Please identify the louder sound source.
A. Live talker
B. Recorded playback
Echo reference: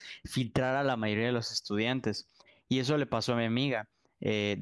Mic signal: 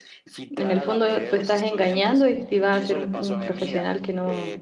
A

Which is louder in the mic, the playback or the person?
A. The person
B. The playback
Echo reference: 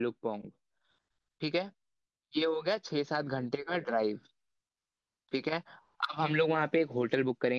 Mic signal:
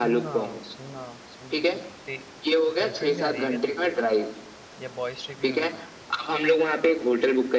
B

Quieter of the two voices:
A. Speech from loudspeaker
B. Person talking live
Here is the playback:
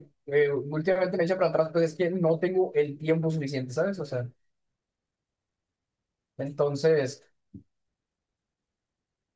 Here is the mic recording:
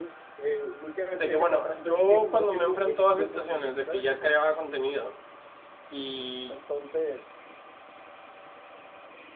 A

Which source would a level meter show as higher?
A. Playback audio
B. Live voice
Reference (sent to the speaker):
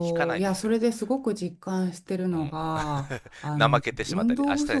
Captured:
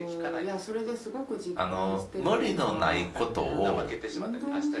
B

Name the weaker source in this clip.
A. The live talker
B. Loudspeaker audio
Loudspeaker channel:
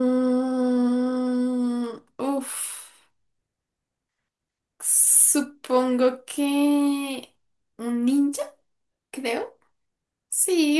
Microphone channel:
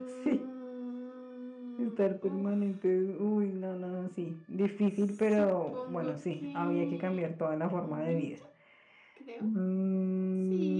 B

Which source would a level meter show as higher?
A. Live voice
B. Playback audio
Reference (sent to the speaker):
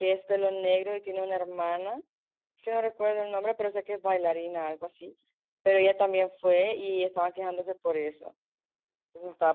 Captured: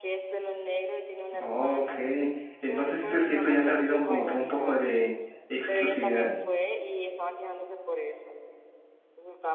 A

